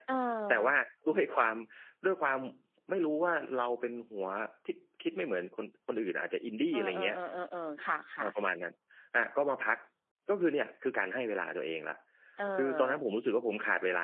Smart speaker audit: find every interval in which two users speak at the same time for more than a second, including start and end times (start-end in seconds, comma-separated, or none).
none